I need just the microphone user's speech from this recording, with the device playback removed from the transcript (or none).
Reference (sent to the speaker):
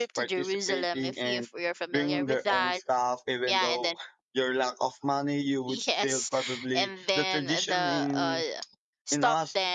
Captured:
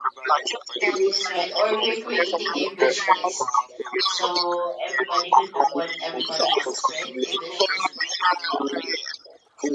That is right. Or we're creating a wish list. So everybody could know what everybody wants, right? A wish list.